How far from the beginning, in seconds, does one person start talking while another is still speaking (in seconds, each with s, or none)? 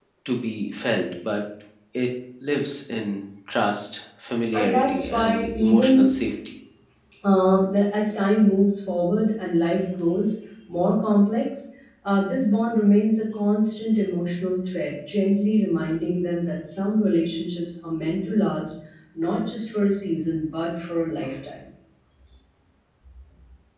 4.5 s